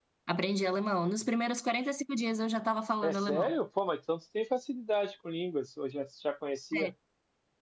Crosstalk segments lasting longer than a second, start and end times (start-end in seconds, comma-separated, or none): none